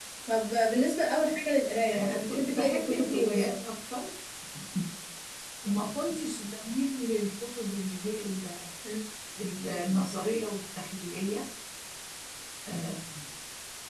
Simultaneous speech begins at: 1.9 s

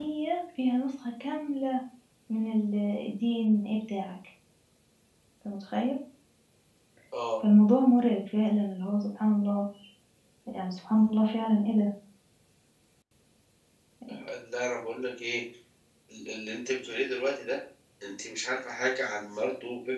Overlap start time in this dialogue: none

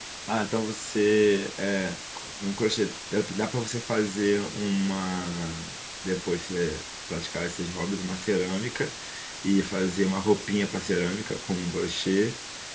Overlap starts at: none

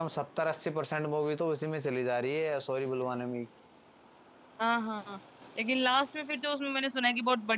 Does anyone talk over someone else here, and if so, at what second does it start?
none

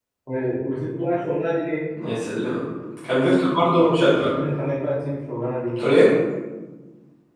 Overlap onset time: none

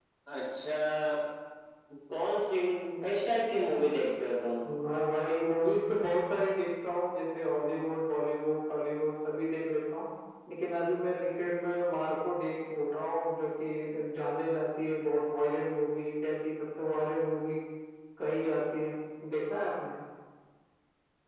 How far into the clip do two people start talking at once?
none

